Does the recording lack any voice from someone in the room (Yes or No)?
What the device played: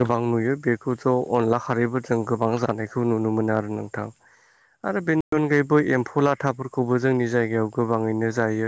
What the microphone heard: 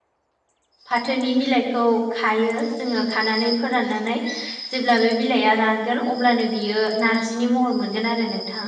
No